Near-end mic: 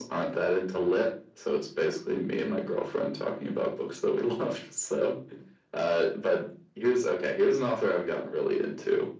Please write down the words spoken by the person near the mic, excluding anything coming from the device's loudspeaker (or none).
none